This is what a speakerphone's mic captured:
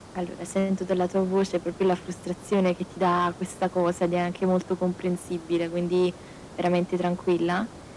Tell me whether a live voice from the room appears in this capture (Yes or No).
No